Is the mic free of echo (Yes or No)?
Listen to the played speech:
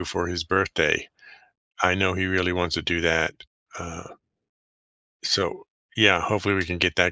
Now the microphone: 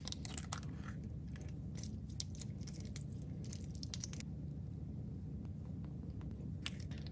Yes